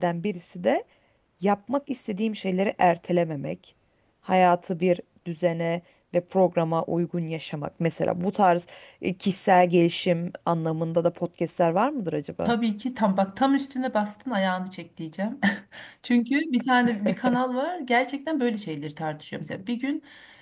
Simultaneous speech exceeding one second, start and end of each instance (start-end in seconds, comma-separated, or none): none